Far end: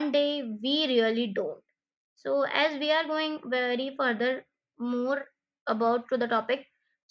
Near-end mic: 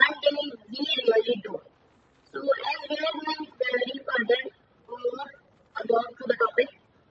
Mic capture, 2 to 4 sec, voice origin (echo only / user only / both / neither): echo only